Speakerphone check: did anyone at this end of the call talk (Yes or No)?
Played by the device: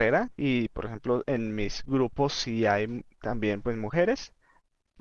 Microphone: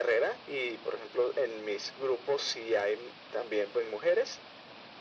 No